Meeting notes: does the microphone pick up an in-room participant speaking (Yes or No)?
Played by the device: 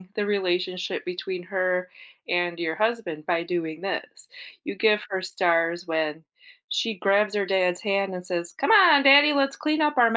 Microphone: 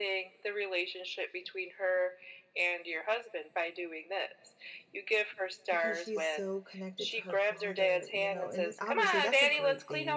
Yes